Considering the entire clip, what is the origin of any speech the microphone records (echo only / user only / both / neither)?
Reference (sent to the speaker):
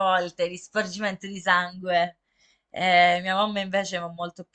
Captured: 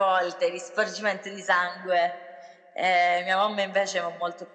echo only